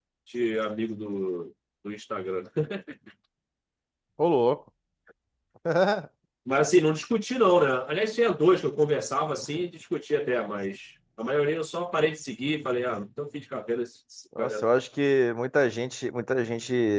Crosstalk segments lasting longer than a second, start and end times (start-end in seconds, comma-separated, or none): none